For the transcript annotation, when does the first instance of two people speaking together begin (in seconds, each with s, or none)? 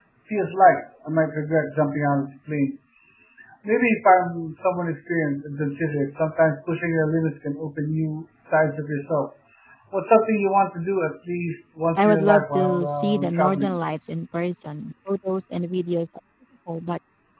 11.9 s